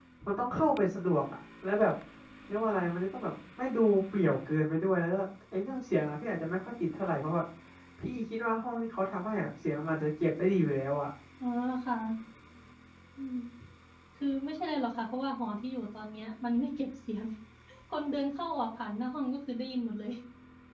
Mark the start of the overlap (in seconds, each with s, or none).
none